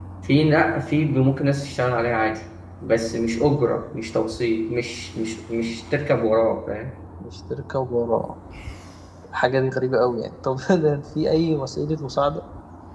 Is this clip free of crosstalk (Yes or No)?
Yes